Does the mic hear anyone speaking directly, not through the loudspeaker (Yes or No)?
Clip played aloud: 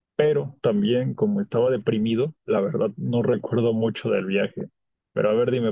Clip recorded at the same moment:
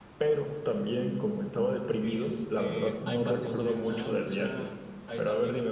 Yes